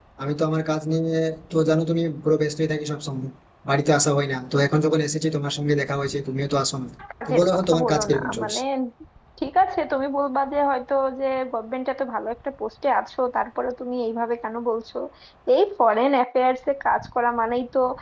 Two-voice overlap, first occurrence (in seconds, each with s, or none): 7.3 s